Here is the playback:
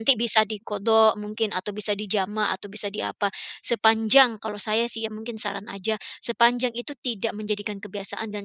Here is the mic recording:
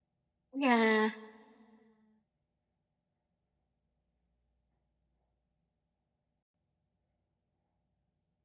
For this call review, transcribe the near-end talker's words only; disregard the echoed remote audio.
Iya.

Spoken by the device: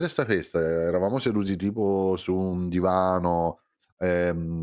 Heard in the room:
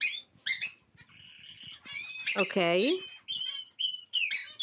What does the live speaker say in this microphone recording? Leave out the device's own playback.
Okay.

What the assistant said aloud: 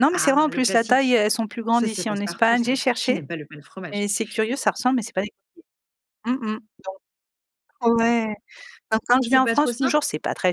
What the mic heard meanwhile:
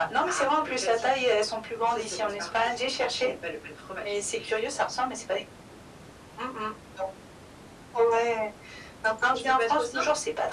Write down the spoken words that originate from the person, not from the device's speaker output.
none

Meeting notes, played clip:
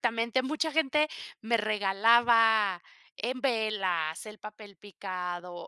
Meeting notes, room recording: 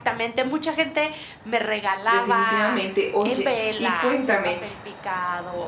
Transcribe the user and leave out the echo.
Definitivamente. Oye, y cuéntame,

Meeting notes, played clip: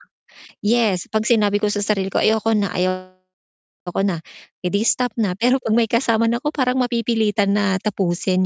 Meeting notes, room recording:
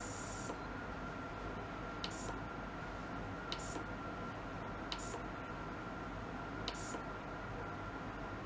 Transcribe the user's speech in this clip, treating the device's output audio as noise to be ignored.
none

